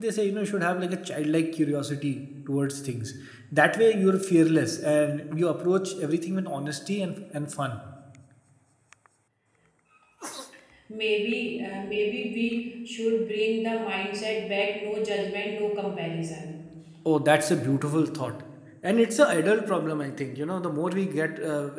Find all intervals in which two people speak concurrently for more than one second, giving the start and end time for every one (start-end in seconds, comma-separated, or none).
none